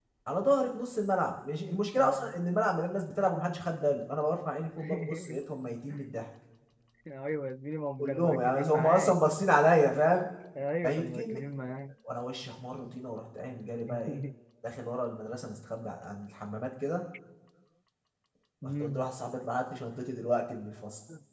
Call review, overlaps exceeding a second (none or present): present